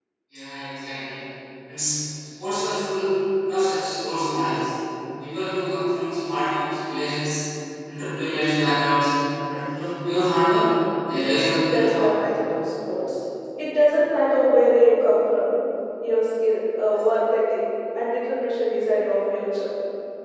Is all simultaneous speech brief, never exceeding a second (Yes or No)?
Yes